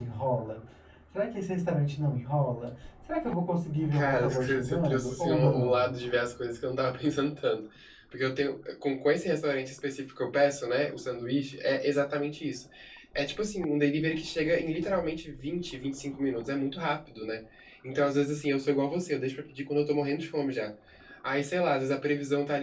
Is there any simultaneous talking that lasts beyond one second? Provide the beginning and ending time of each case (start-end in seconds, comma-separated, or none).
3.9-5.8